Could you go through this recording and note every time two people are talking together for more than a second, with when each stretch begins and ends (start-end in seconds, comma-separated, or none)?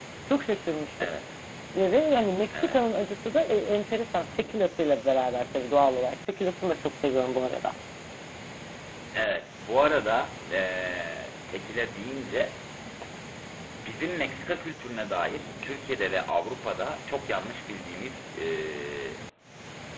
none